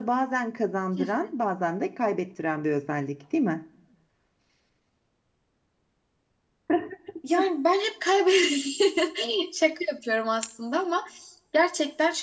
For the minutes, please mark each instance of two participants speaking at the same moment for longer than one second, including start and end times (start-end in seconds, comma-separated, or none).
none